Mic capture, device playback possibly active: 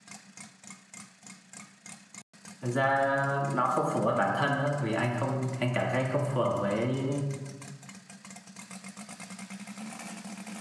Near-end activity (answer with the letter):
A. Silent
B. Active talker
B